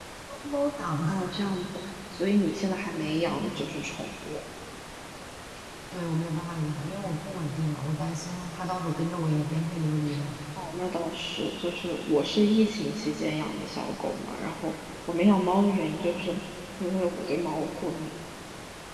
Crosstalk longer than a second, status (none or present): none